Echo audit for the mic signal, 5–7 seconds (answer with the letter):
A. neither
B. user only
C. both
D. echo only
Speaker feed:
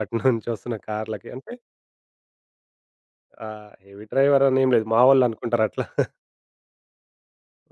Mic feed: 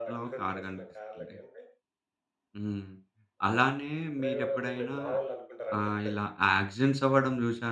C